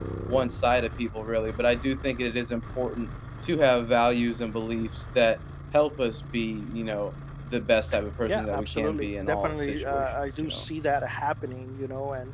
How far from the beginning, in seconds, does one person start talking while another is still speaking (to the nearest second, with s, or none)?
8 s